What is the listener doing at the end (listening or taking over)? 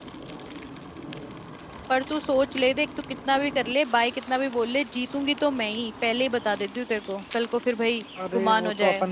taking over